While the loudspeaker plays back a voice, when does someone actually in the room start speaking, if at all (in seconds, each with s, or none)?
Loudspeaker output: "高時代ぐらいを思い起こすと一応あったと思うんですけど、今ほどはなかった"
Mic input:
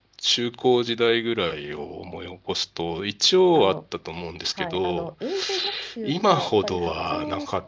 3.5 s